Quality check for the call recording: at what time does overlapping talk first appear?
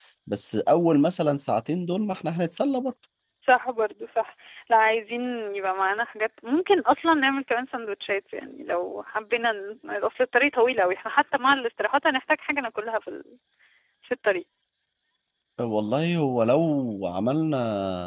none

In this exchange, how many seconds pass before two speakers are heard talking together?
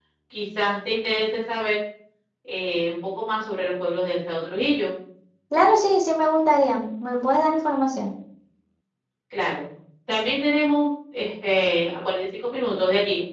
none

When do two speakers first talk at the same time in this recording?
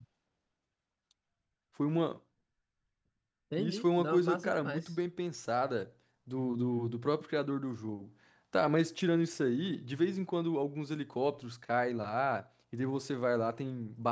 3.6 s

